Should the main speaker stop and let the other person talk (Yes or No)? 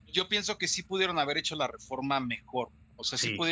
No